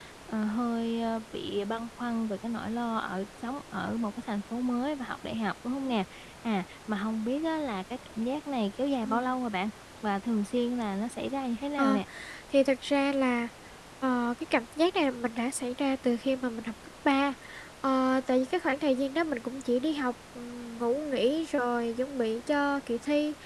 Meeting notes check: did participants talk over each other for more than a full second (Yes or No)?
No